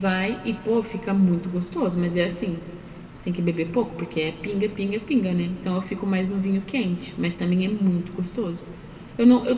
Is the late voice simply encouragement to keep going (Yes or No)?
Yes